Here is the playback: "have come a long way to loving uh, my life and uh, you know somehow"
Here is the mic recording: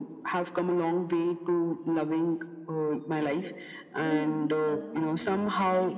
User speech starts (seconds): 3.1 s

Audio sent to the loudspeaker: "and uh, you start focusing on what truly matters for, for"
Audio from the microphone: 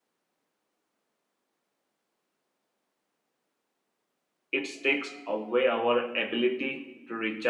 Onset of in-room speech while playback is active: 4.5 s

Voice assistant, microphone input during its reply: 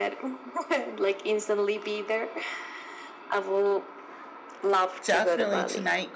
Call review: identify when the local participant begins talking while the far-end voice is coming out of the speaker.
5.0 s

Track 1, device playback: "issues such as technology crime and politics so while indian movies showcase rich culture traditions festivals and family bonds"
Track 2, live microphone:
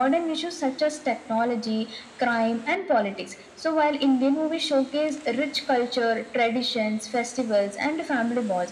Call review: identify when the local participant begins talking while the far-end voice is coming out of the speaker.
none

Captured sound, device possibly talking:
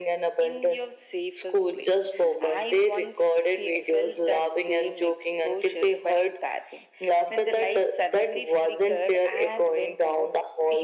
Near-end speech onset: none

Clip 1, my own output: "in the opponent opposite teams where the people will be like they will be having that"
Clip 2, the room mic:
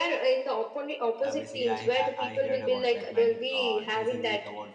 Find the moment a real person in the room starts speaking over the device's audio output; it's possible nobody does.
1.2 s

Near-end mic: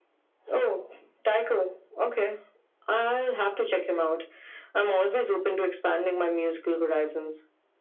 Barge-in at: none

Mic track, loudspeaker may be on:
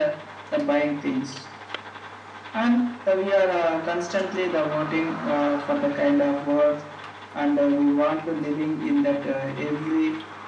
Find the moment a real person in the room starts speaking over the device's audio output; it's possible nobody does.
none

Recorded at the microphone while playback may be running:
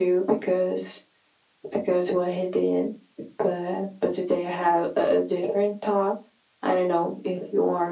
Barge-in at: none

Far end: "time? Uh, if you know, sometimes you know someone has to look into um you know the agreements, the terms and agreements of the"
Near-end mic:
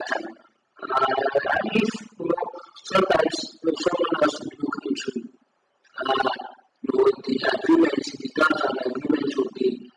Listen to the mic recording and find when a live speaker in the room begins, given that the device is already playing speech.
none

